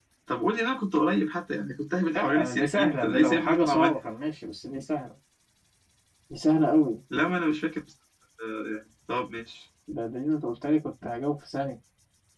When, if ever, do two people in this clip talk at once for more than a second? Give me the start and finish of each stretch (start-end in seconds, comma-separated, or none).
2.1-4.0